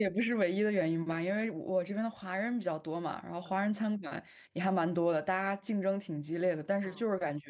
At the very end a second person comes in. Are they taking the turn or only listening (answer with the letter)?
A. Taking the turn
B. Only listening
B